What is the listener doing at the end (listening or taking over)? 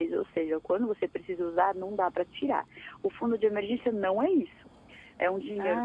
listening